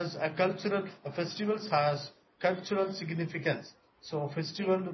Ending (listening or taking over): listening